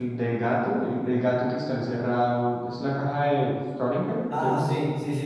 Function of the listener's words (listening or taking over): taking over